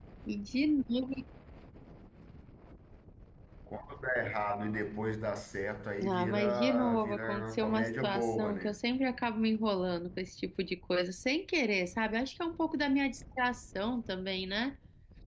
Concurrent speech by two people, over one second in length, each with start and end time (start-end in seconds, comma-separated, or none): 6.0-8.8